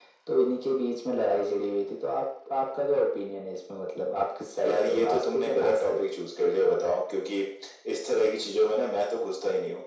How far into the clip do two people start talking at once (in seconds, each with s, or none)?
4.6 s